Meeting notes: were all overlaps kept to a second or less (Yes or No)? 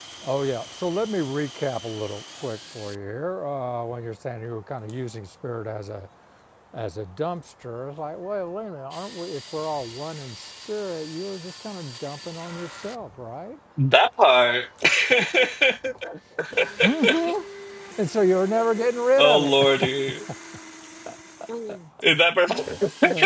Yes